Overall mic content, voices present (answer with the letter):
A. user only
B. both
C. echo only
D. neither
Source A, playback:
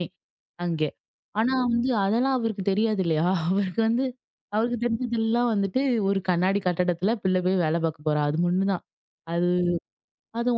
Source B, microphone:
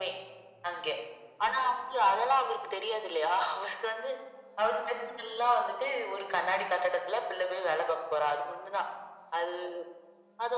C